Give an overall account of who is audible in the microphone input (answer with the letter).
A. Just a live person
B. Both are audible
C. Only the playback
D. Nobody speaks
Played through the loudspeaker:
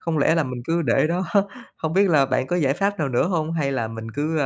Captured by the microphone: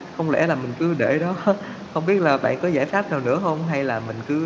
C